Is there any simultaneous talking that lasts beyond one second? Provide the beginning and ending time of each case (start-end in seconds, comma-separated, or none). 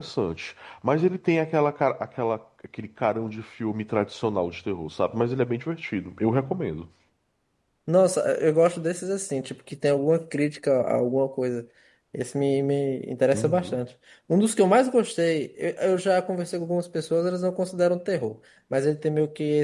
none